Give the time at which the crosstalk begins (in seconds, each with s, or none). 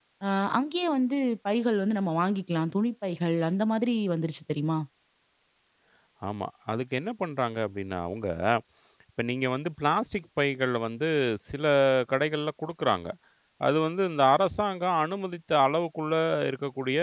none